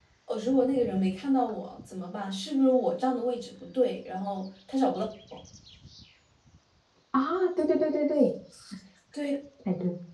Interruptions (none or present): none